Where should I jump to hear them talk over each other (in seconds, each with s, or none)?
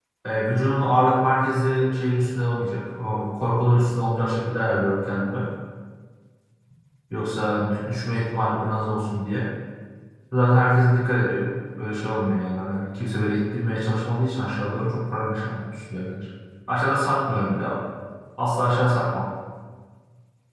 none